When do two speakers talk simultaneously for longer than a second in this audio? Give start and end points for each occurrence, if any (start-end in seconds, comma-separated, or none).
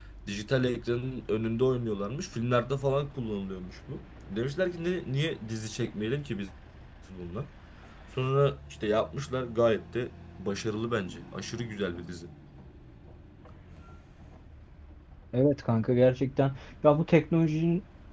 none